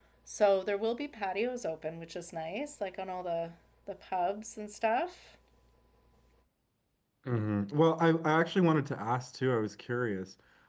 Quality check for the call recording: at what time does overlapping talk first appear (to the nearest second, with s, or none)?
none